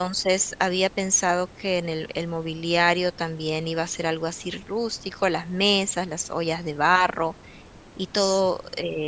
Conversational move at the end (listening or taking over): listening